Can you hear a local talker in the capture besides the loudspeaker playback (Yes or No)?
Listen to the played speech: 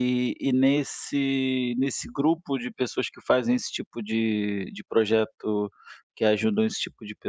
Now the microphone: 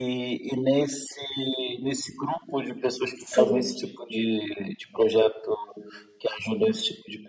Yes